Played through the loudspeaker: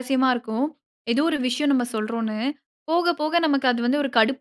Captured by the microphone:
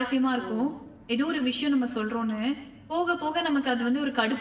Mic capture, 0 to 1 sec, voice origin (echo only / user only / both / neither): both